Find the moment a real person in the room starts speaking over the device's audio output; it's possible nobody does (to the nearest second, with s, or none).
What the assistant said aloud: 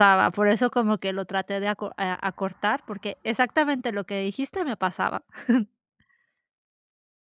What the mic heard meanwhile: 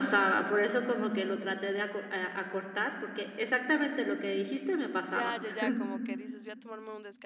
5 s